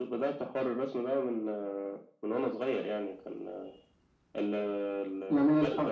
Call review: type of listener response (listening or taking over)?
taking over